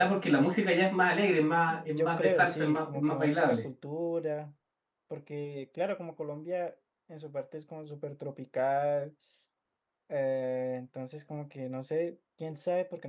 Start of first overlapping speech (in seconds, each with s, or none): 1.7 s